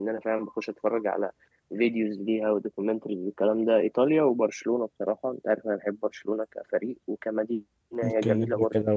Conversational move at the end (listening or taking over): taking over